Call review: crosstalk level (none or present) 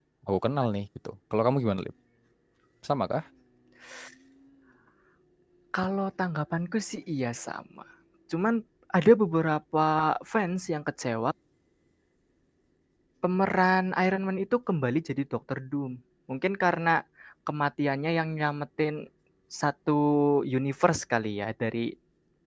none